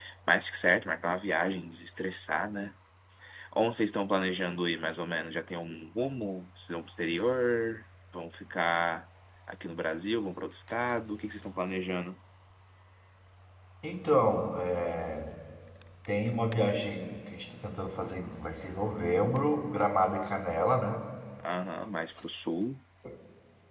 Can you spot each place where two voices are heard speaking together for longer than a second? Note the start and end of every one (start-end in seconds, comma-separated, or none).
none